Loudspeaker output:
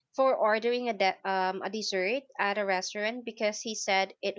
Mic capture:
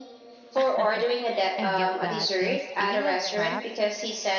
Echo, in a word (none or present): present